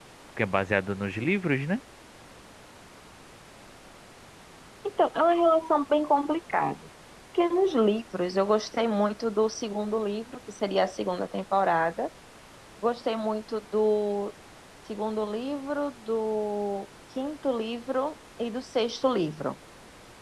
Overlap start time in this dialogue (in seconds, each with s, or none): none